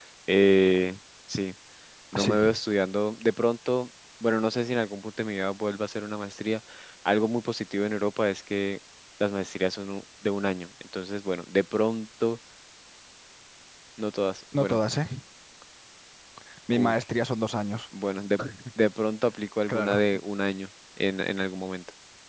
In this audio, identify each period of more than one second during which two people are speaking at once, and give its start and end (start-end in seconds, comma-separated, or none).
none